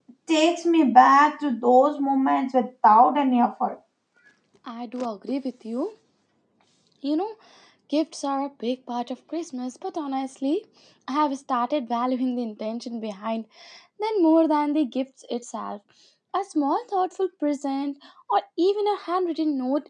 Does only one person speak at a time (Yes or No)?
Yes